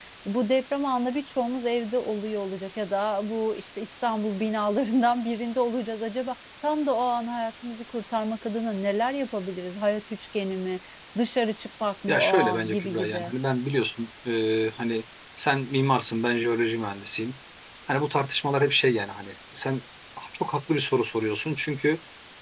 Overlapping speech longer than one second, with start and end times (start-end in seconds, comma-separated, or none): 12.1-13.3